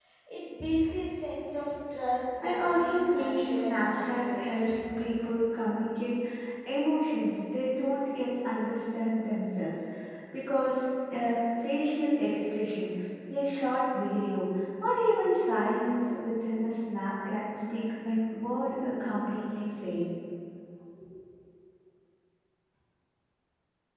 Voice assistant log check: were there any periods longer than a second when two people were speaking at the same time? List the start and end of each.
2.4-4.7

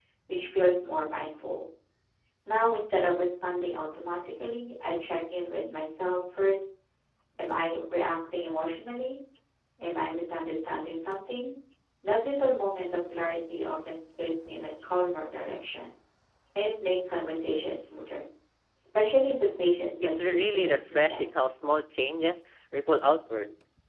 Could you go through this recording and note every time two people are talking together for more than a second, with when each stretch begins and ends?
20.0-21.6

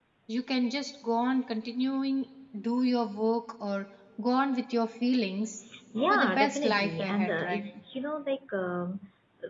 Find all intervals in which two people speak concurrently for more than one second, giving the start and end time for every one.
6.1-7.6

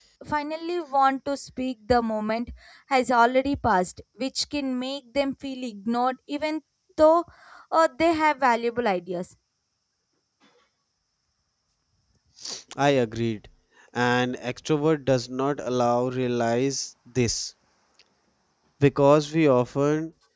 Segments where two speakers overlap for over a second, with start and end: none

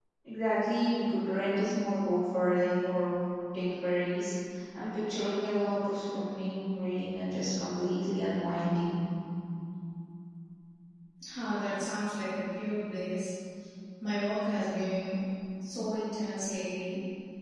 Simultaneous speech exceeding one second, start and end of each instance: none

